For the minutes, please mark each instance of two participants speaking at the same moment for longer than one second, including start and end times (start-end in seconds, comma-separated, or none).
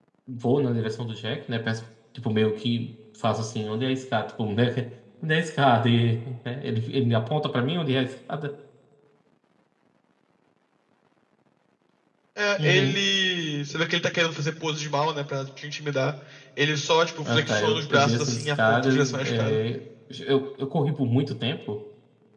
17.2-19.6